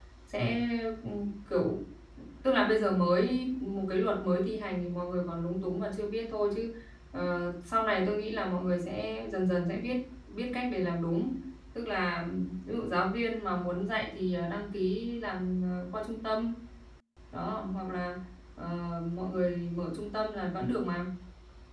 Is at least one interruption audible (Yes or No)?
No